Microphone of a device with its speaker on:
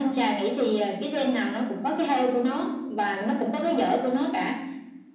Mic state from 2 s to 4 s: echo only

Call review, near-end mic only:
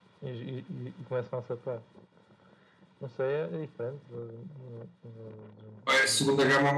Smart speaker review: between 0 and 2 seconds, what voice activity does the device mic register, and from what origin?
echo only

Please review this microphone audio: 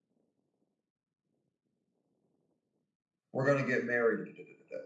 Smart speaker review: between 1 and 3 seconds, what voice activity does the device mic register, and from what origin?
neither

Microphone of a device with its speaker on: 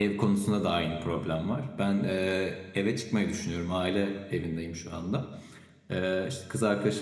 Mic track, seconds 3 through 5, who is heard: user only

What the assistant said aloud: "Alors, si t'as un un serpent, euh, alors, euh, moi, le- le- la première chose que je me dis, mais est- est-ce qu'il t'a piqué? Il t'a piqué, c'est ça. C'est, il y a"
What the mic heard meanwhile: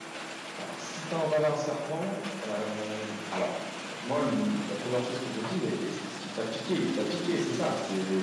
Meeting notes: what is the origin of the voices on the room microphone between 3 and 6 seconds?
echo only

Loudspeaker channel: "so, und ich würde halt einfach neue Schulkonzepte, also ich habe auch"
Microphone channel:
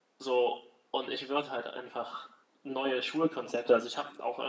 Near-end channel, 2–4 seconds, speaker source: echo only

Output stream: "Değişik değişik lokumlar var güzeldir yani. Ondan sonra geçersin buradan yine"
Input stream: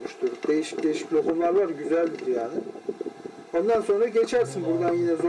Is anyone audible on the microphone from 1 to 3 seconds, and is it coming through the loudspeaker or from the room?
echo only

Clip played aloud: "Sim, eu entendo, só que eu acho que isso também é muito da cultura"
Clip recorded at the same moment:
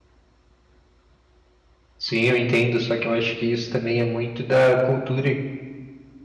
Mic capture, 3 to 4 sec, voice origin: echo only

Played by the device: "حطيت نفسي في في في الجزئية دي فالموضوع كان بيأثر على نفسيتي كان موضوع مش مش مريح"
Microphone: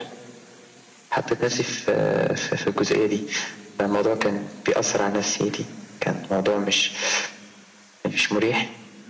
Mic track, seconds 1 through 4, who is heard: echo only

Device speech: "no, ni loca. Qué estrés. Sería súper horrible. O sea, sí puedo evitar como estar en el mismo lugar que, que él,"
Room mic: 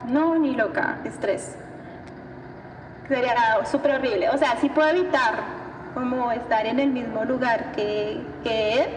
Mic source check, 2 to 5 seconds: echo only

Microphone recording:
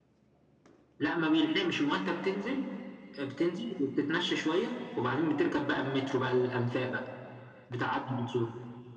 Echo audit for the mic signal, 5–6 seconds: echo only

